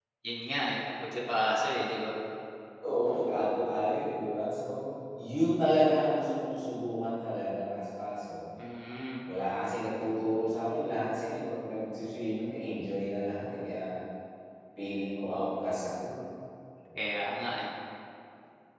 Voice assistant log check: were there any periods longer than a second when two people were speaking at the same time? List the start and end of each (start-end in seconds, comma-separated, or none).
none